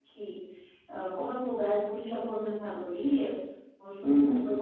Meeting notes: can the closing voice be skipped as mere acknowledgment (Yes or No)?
Yes